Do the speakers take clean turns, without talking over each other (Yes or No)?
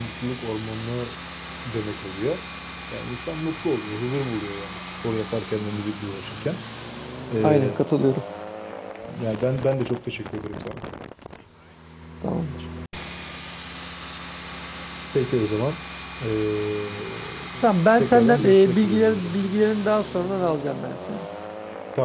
No